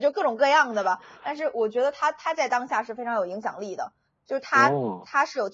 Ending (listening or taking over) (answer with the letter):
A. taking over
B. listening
B